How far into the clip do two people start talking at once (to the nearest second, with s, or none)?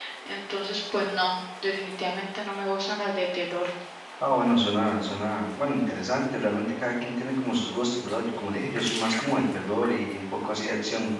none